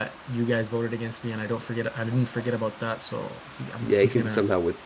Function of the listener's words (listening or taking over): taking over